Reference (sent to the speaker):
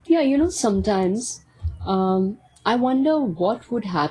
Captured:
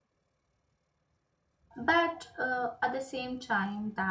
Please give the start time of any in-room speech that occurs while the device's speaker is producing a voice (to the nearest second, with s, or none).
2 s